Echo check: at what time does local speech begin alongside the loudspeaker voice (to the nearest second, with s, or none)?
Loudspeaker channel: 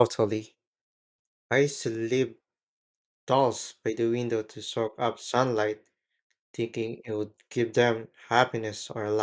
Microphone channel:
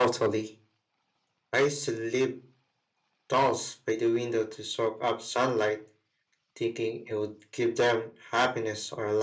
none